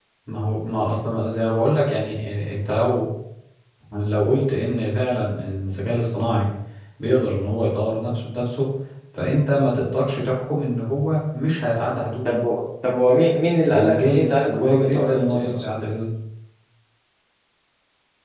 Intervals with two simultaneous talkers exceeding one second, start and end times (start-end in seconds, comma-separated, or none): 13.7-15.5